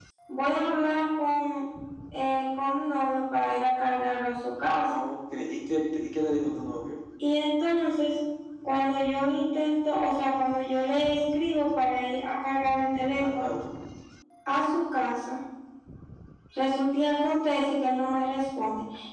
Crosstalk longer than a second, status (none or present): none